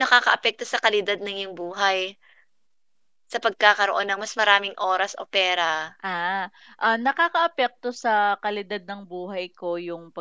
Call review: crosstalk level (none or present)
none